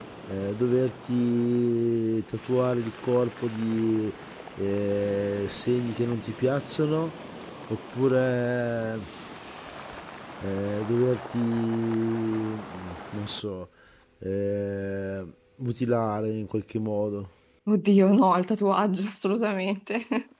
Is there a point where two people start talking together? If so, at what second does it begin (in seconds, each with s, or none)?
none